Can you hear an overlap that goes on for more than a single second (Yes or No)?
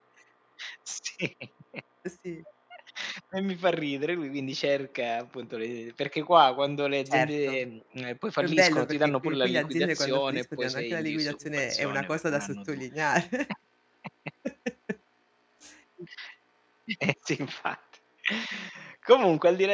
Yes